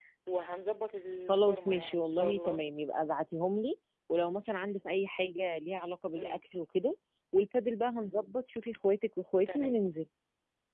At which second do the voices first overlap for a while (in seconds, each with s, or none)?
1.3 s